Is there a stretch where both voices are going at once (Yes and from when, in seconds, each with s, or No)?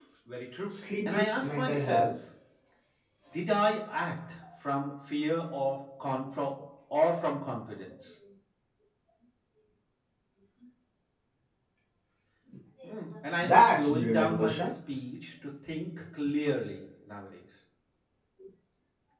Yes, from 0.7 s